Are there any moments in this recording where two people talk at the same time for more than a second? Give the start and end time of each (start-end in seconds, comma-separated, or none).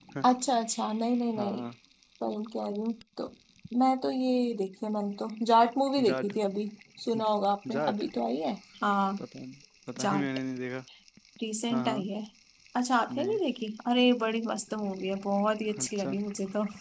none